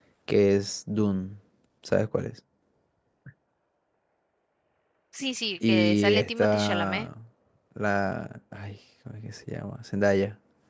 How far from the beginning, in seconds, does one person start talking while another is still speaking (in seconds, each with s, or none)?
5.7 s